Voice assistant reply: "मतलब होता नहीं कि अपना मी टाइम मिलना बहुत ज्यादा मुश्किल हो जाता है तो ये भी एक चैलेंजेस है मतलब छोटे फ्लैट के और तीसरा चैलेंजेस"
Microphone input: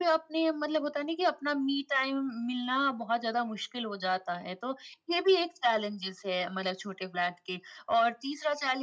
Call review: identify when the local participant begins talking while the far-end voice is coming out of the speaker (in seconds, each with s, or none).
none